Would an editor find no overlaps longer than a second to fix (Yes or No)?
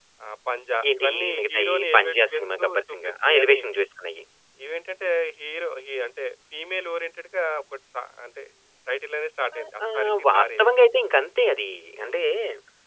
No